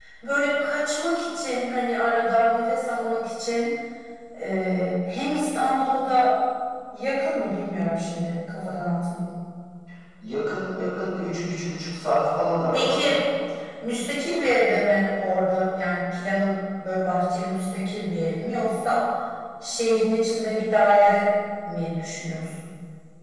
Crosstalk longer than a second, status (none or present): none